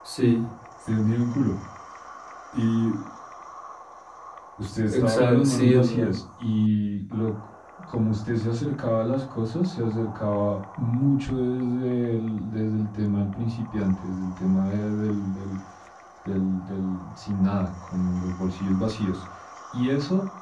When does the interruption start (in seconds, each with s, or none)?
4.9 s